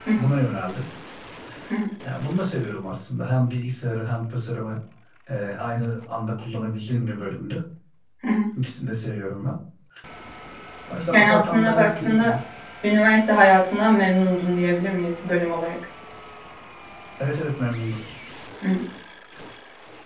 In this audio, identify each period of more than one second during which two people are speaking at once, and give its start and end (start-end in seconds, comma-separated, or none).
11.1-12.4